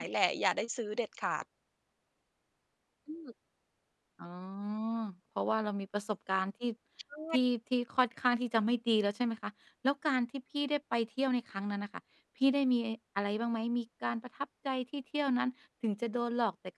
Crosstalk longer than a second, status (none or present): none